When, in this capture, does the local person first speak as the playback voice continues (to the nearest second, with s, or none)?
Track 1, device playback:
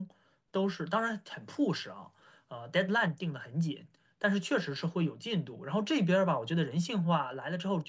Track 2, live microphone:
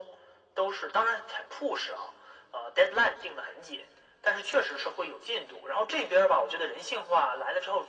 none